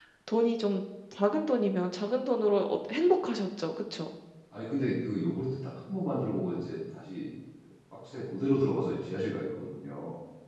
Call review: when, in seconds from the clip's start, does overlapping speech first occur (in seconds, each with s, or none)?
none